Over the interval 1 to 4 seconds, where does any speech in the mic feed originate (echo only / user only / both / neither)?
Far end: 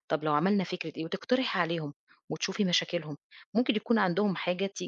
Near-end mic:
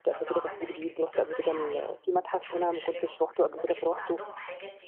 both